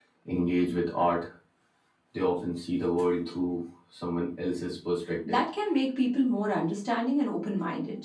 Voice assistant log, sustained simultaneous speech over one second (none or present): none